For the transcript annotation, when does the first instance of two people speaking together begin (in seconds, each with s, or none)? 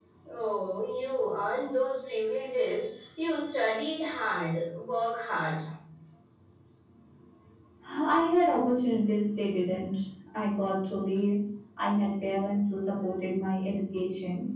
none